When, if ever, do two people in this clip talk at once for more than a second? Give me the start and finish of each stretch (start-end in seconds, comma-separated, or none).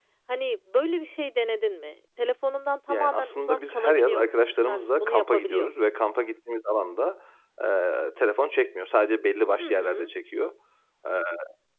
2.9-5.8